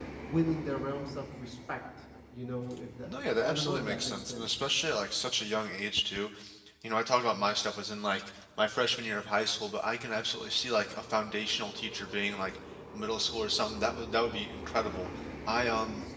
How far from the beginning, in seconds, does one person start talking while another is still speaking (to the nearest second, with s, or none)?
3 s